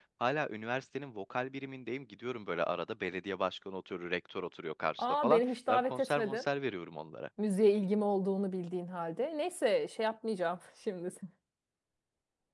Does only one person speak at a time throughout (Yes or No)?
No